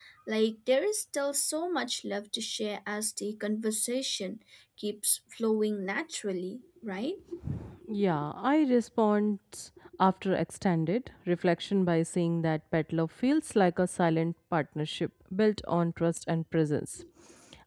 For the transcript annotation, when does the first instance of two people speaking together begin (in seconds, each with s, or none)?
none